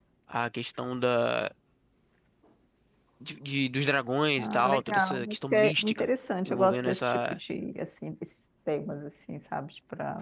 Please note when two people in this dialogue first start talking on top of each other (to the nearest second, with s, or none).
4 s